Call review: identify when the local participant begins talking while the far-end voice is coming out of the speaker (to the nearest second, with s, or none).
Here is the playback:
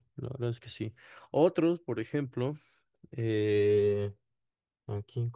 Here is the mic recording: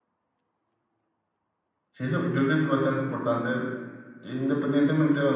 2 s